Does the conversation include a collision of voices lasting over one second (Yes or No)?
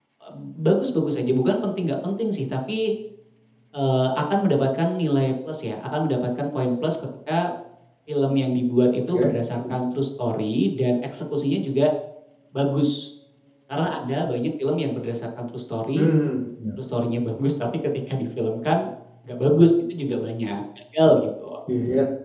No